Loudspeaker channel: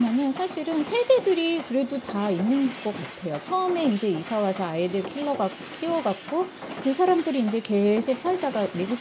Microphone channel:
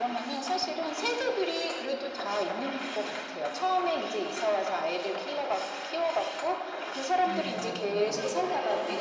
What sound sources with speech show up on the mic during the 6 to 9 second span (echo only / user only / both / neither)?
both